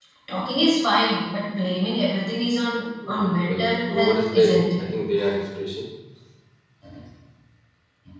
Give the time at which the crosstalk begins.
3.0 s

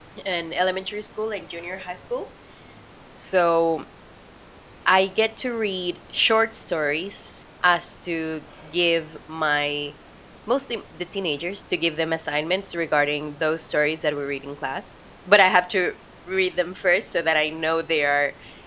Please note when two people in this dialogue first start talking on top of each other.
none

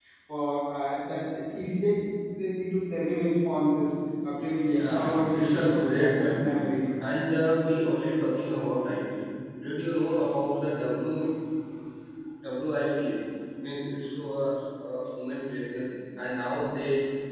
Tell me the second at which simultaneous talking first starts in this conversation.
4.7 s

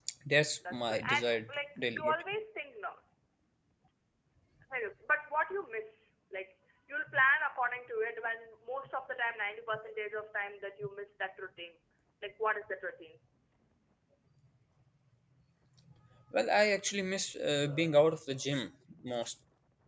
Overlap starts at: 0.7 s

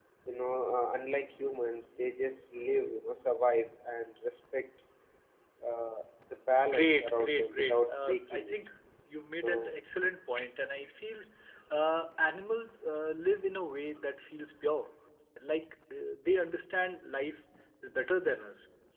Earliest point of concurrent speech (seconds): 6.7 s

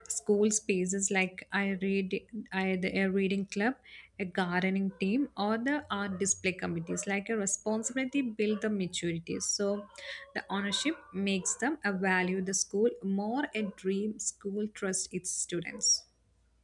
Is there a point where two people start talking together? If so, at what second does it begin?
none

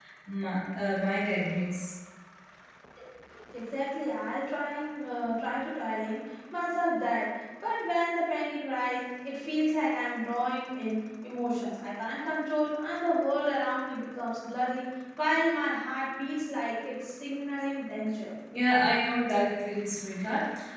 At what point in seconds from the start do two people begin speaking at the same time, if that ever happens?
none

